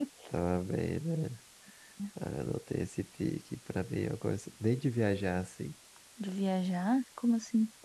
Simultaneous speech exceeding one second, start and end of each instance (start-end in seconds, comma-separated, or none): none